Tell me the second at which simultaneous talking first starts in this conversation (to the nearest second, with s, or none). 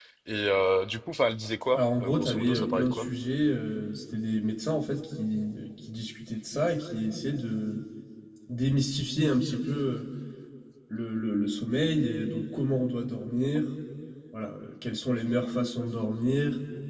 2 s